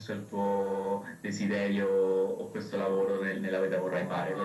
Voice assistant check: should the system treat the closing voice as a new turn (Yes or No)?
No